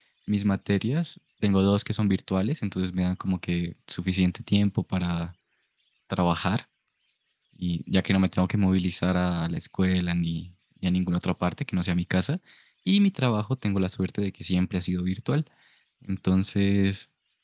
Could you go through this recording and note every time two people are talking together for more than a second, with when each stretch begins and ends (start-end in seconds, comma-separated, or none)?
none